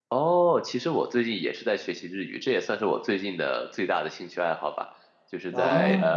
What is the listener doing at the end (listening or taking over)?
listening